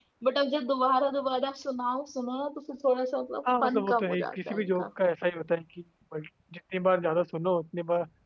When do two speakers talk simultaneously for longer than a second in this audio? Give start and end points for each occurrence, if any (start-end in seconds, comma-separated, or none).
3.6-4.8